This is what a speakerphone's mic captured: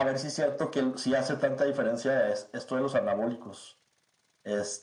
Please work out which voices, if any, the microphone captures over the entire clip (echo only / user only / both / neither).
echo only